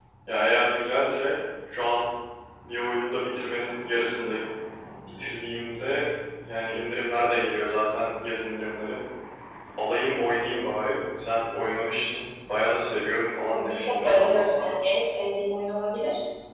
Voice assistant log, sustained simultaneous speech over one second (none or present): present